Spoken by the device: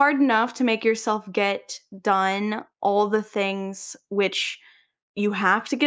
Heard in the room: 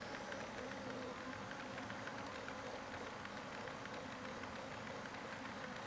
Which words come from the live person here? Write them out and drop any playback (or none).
none